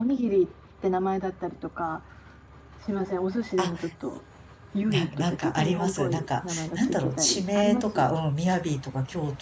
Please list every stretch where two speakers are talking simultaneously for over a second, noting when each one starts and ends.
4.9-8.1

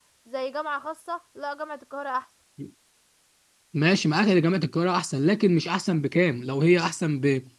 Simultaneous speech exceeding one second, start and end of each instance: none

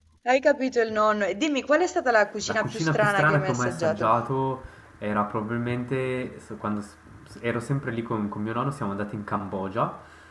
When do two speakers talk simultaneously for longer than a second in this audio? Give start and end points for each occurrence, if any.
2.4-4.1

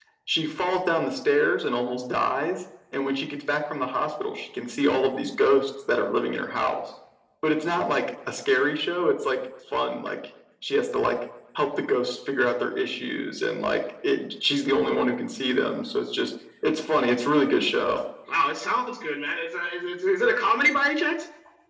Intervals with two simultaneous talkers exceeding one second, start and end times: none

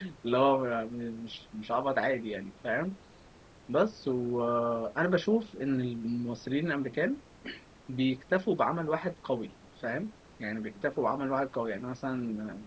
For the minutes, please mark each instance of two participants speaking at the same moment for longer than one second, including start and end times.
none

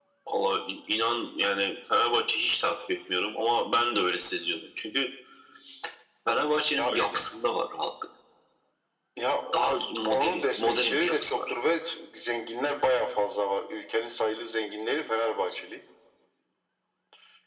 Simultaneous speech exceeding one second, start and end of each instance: 10.1-11.5

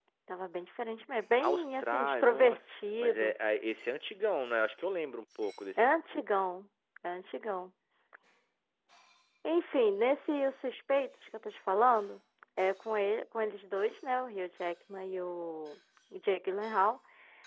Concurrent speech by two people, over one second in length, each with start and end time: 1.4-3.3

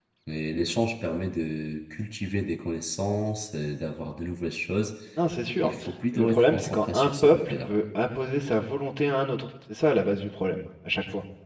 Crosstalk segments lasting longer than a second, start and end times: 6.1-7.7

